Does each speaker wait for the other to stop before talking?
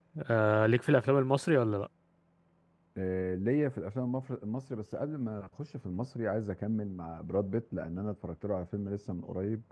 Yes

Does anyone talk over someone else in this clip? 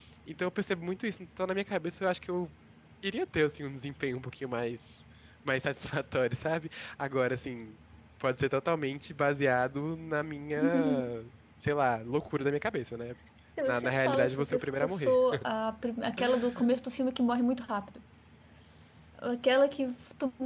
Yes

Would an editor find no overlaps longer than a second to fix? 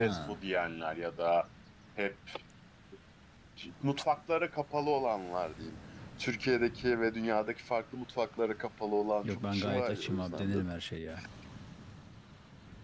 No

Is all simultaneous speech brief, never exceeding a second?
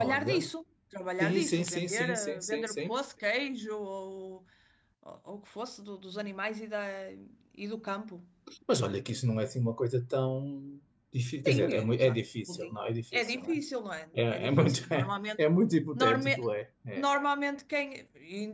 No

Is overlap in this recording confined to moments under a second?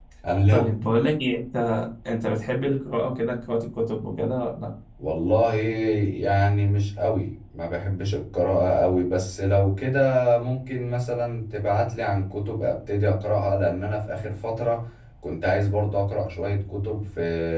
Yes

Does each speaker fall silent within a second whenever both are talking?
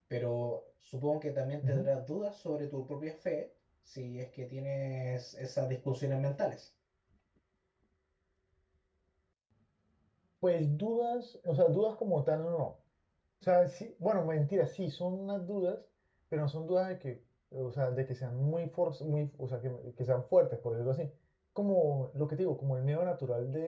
Yes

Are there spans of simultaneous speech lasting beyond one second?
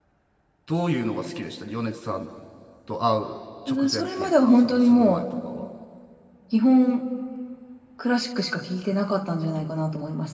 Yes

